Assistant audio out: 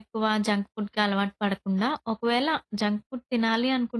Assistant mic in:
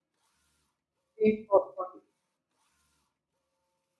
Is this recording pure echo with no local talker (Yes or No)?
No